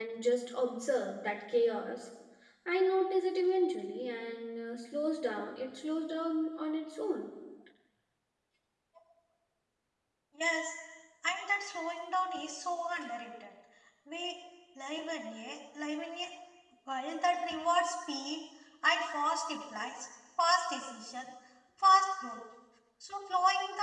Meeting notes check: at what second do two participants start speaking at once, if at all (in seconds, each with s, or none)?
none